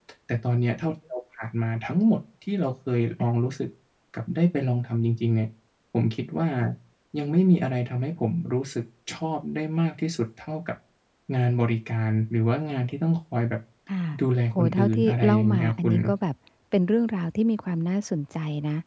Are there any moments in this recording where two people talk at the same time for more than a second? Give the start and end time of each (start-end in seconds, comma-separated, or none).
14.6-15.9